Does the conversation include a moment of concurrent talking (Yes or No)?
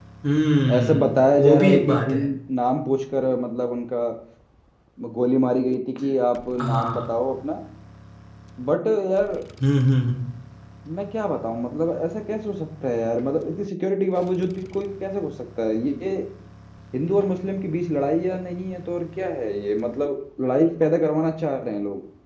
Yes